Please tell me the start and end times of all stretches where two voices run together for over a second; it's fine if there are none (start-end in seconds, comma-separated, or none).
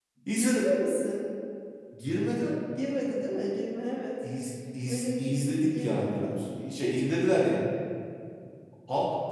4.9-6.4